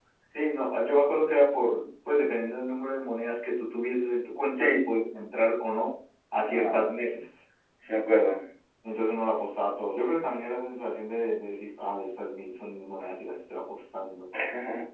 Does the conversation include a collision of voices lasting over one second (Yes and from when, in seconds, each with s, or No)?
No